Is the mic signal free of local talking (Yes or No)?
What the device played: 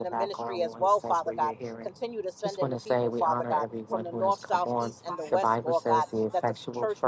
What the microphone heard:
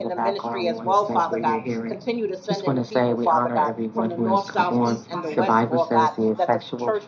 Yes